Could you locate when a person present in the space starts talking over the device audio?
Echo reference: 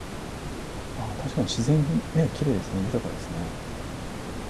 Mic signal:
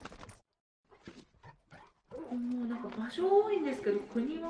2.3 s

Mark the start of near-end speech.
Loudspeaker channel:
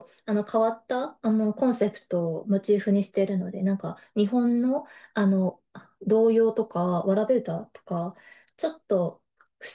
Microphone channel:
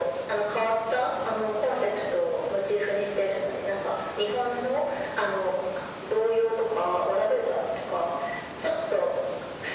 none

